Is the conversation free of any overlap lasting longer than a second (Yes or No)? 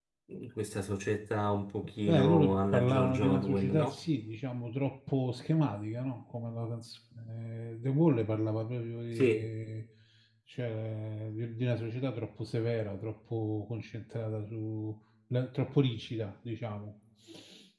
No